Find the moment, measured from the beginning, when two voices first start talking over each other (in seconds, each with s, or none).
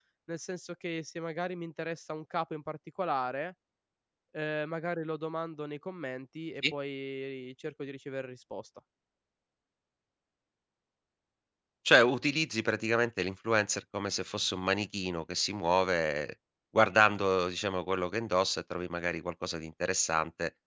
none